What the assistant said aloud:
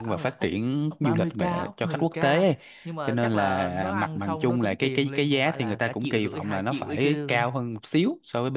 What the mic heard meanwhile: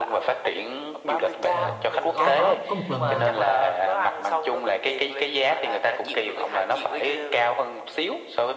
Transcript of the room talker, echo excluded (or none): Ờ, có có có một lần à,